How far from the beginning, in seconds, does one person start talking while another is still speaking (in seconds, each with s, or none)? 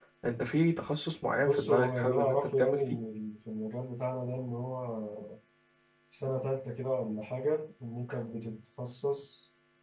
1.4 s